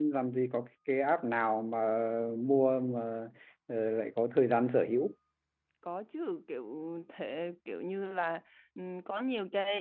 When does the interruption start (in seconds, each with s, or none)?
none